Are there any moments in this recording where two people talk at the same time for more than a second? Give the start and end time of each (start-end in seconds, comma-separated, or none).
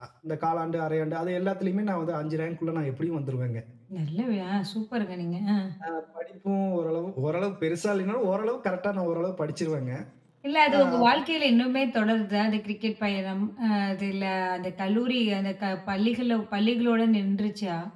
none